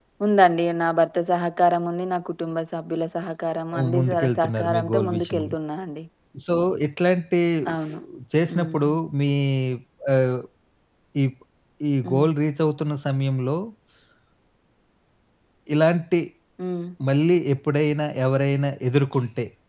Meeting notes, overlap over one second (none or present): present